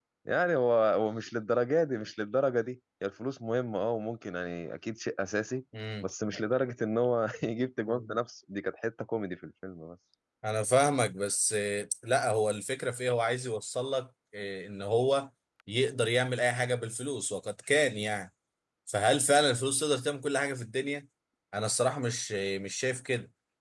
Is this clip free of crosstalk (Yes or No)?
Yes